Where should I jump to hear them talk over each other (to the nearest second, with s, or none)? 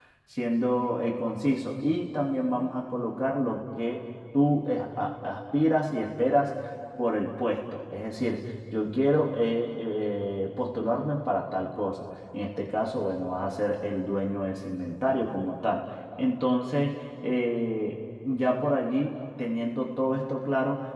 none